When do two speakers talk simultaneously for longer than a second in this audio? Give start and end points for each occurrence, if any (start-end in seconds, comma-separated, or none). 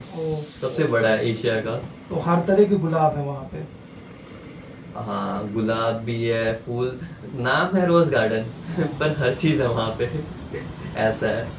none